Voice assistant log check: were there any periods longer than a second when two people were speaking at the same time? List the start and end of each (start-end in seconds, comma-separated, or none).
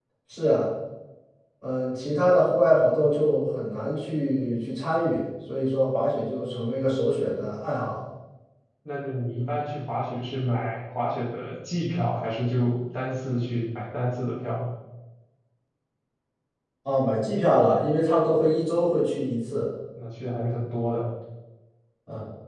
none